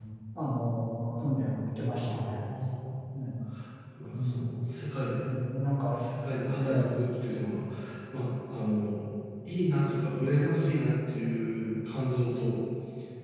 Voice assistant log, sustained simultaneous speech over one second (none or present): none